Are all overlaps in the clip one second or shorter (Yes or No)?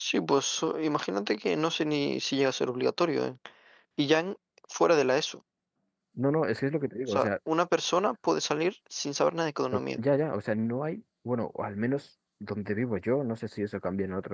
Yes